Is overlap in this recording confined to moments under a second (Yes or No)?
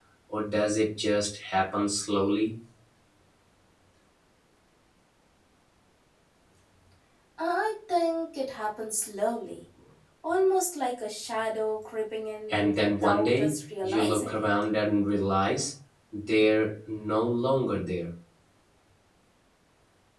No